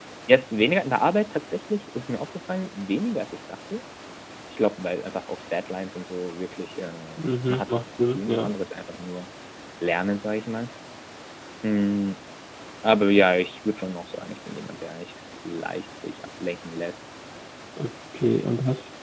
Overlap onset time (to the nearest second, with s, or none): 7 s